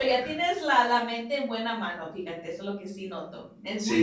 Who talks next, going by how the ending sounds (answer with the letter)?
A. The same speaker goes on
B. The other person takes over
B